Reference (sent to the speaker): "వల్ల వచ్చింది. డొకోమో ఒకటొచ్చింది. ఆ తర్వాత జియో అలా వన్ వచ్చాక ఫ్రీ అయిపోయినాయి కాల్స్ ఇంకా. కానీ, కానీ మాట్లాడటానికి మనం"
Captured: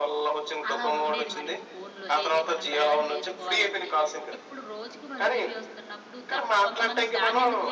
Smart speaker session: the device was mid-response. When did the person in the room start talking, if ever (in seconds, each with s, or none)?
0.7 s